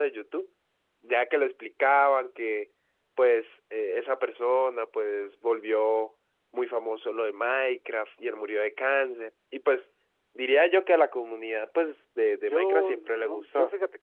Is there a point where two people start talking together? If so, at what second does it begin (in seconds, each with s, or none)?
12.4 s